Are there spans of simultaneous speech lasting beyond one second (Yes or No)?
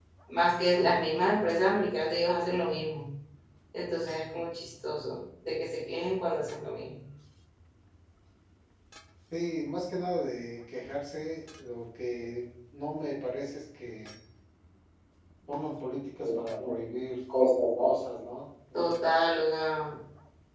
No